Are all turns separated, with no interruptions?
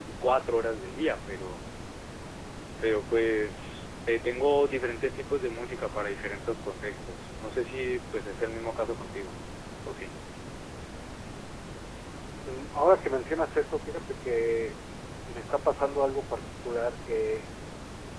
Yes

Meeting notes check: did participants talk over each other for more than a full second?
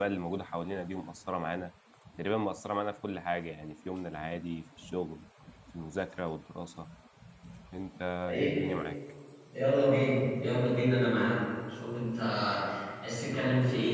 No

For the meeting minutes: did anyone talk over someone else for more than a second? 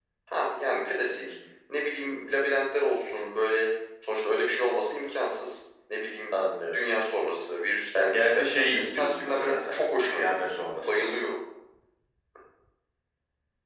Yes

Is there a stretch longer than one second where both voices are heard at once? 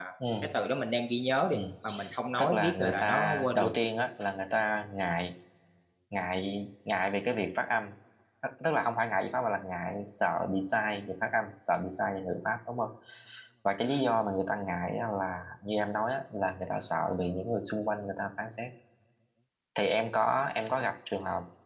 Yes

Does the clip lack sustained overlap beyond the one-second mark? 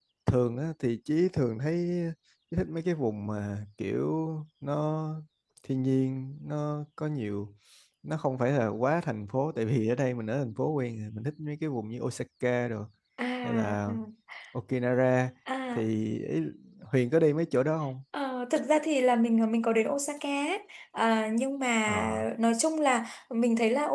Yes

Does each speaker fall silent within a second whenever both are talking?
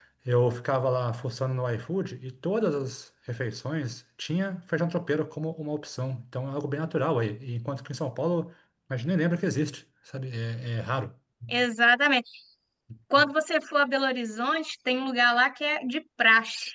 Yes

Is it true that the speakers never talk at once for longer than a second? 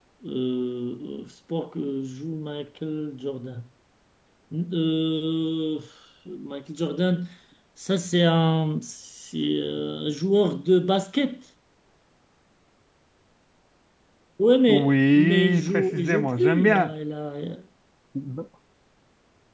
No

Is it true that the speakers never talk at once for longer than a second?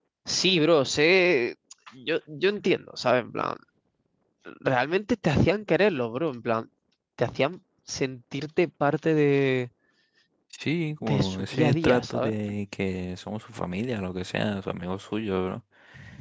No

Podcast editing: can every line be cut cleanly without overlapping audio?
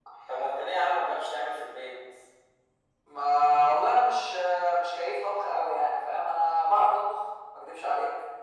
Yes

